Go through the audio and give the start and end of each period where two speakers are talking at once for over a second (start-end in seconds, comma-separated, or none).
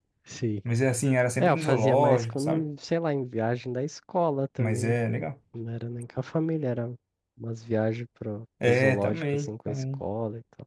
1.4-2.7, 8.7-10.0